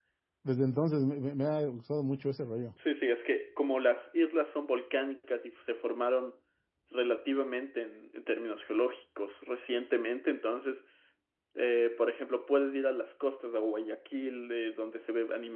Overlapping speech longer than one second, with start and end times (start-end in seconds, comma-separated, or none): none